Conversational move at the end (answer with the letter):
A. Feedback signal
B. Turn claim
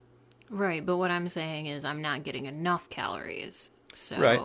B